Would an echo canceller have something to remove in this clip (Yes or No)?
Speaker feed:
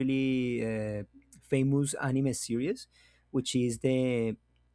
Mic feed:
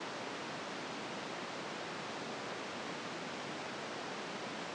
No